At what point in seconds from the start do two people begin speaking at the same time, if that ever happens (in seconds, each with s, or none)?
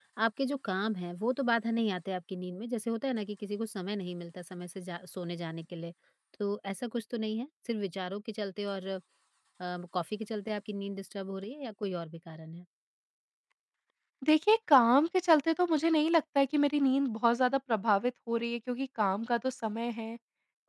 none